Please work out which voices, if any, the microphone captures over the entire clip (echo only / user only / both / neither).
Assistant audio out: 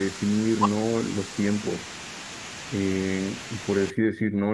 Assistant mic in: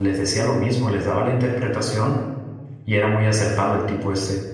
user only